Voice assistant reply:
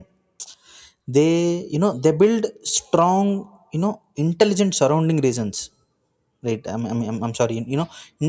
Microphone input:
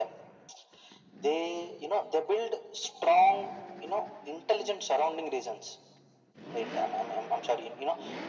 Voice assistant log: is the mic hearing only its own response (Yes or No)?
Yes